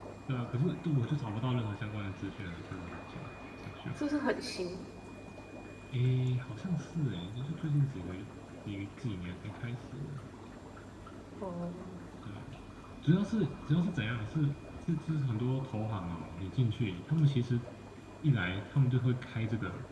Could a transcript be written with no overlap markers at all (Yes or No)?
Yes